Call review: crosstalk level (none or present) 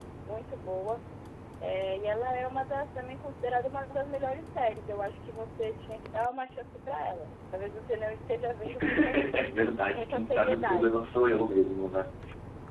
present